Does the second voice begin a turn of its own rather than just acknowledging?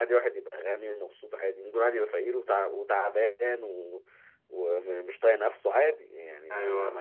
No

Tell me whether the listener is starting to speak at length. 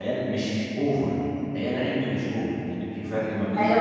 Yes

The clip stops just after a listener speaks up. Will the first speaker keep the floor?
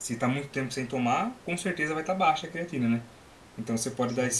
Yes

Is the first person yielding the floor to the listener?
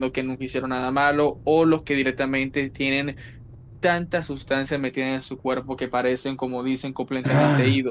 Yes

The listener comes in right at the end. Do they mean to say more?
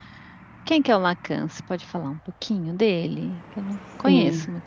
Yes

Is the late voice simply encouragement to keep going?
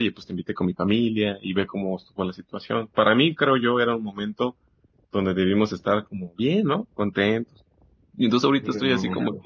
Yes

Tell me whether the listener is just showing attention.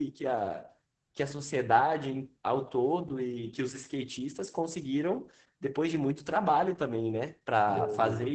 Yes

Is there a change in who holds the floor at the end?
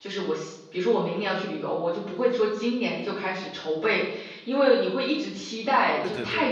No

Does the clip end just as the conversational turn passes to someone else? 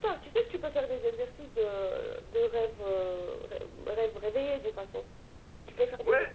Yes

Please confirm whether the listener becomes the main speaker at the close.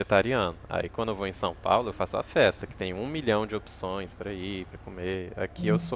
No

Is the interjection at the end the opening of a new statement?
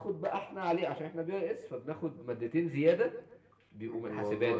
Yes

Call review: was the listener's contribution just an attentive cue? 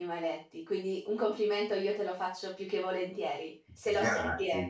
No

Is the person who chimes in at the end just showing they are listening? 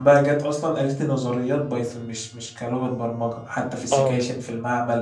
Yes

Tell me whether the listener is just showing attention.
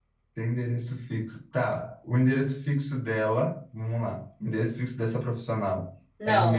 No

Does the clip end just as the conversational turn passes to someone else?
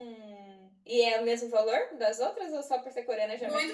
Yes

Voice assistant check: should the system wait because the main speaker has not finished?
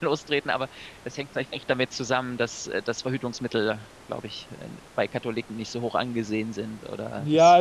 No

